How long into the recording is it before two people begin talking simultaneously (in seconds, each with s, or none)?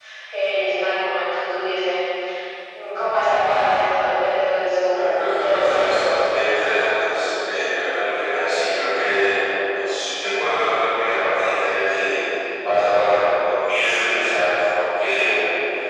4.9 s